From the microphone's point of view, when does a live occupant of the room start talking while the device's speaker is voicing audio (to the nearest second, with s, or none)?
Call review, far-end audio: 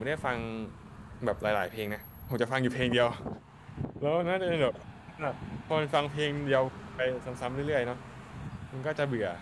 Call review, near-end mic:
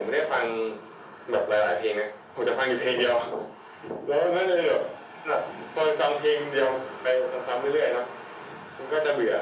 none